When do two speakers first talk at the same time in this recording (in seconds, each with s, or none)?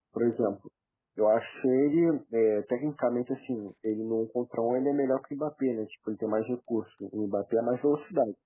none